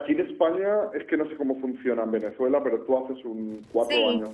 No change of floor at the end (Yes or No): No